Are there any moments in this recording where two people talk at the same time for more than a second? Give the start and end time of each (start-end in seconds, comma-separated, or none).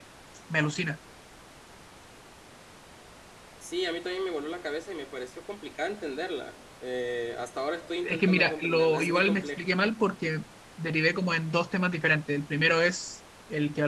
8.0-9.7